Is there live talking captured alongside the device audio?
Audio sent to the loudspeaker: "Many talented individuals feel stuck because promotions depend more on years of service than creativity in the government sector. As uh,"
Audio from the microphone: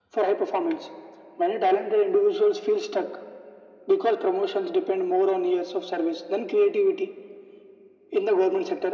No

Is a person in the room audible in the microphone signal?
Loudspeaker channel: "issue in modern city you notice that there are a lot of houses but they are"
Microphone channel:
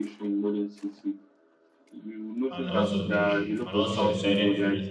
Yes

